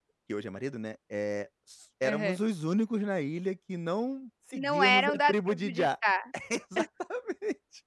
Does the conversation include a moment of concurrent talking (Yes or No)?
Yes